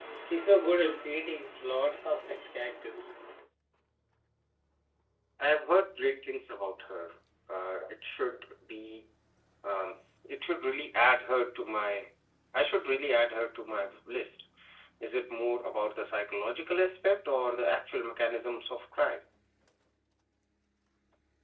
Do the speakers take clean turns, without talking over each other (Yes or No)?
Yes